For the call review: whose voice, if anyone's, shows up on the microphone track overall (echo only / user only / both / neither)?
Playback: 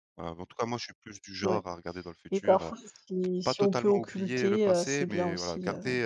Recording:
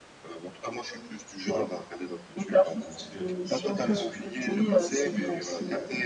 both